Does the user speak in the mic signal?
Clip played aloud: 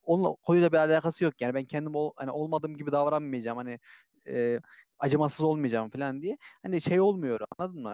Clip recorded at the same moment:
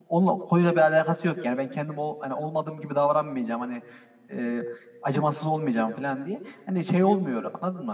No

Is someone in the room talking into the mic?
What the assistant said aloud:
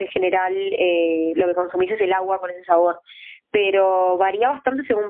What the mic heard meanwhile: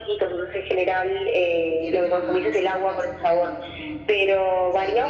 Yes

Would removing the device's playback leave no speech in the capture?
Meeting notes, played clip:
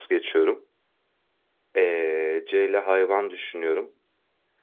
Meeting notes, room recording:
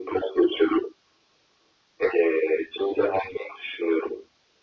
Yes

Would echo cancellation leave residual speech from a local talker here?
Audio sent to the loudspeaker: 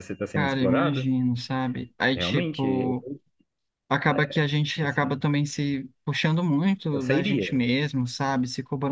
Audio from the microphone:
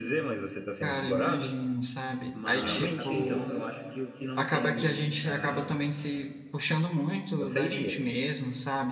Yes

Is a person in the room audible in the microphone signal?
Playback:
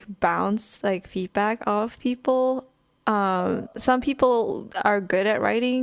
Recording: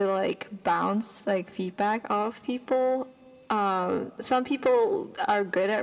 No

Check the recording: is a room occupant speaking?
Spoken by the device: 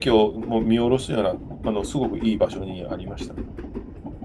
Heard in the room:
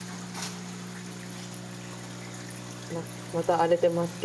Yes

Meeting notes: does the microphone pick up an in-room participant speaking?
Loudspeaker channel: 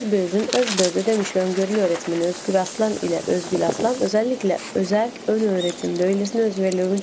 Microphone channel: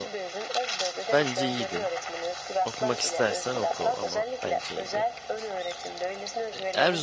Yes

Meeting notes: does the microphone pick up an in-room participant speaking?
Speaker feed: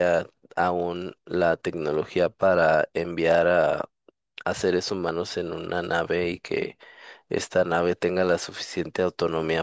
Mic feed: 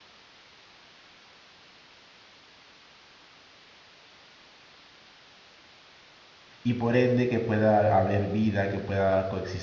Yes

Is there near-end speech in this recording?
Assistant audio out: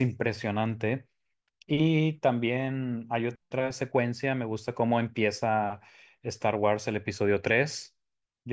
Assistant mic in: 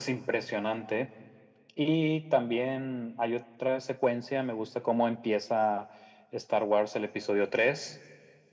No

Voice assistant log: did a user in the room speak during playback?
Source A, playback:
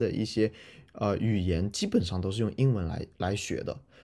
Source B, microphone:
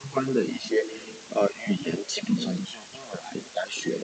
No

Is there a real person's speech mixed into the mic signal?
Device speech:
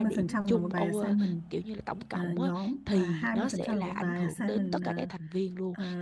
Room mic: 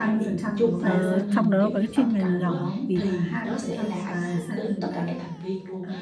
Yes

